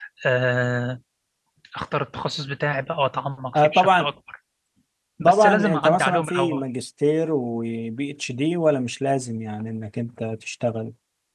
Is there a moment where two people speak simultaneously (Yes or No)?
Yes